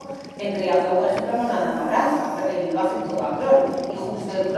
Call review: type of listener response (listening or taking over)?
listening